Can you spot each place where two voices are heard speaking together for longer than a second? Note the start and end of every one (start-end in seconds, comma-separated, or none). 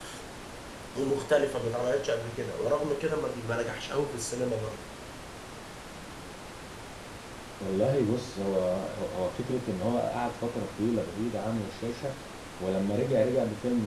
none